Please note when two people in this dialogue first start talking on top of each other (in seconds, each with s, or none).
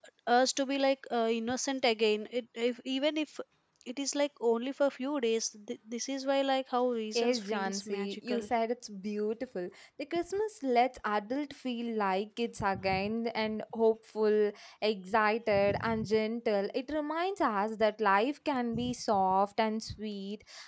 7.2 s